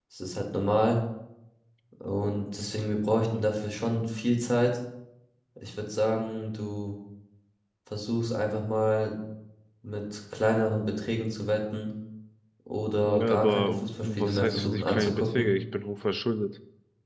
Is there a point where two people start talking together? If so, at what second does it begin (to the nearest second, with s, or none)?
13 s